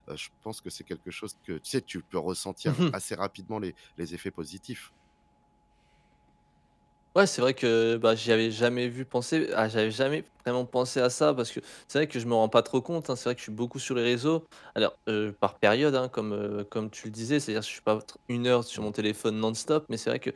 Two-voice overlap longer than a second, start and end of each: none

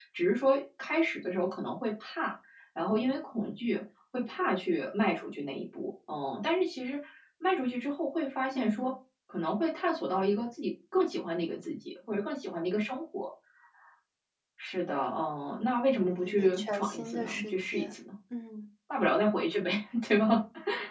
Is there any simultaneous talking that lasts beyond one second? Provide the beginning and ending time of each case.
16.2-17.9

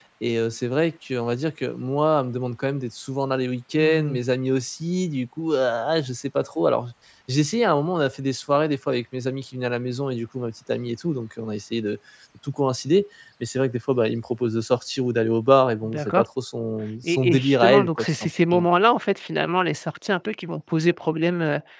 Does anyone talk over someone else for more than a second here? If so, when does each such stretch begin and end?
17.0-18.6

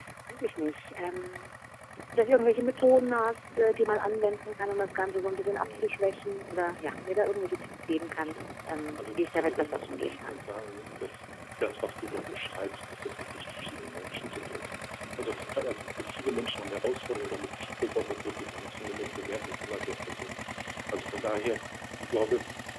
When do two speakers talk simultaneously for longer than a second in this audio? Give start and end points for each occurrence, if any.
9.0-10.4

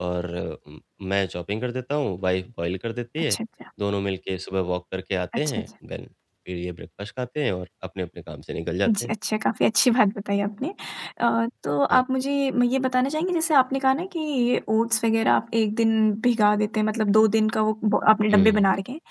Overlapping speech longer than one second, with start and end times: none

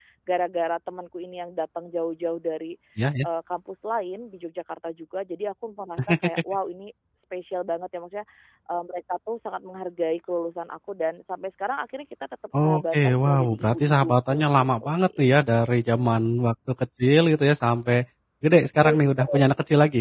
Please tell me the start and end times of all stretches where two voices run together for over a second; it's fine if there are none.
12.6-15.3

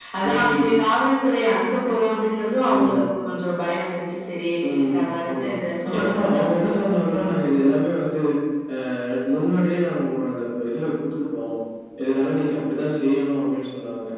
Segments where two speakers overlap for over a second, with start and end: 6.0-7.2

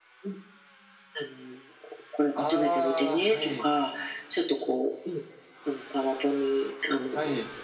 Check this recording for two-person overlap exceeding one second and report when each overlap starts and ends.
2.4-3.7

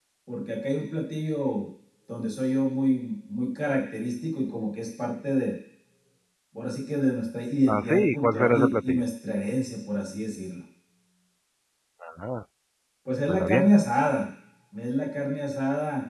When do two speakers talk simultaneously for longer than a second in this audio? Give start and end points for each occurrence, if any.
7.7-9.0

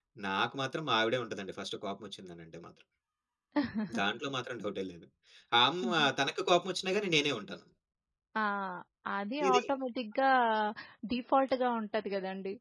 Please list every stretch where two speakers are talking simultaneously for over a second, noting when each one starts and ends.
none

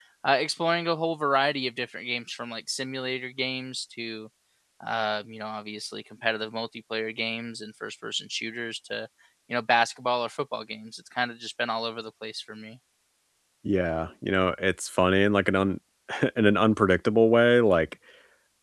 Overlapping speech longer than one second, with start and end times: none

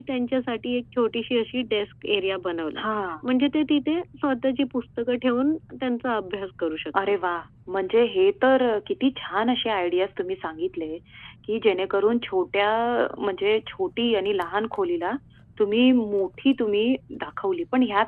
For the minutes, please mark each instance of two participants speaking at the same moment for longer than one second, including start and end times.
none

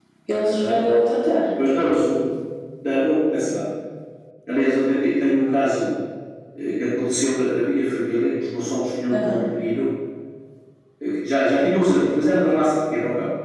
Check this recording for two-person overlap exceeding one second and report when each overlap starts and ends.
none

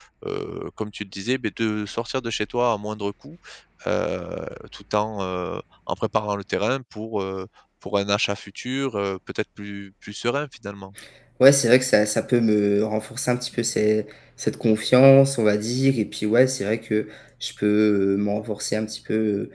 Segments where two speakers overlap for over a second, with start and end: none

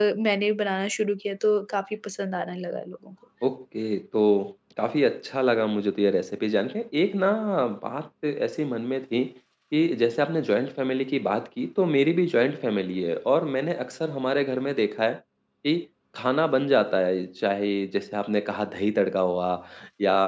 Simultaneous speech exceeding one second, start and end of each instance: none

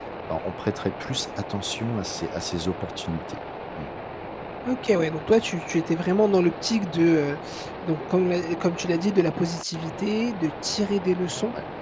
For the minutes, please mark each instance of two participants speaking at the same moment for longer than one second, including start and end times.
none

